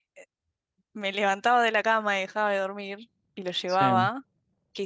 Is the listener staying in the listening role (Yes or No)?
Yes